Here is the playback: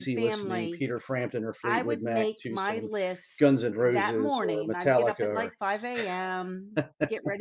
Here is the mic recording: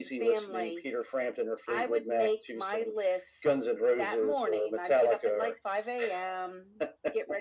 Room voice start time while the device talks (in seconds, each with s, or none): none